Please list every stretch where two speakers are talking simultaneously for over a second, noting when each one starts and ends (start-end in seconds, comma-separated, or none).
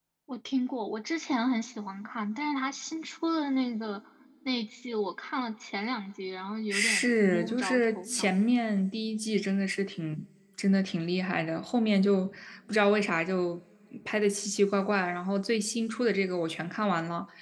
6.7-8.3